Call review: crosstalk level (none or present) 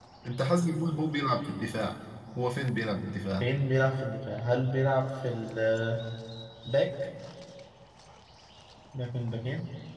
none